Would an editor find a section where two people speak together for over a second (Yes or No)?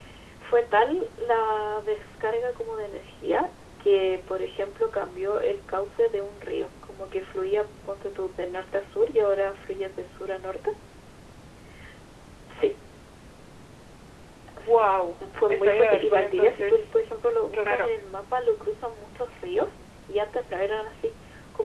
Yes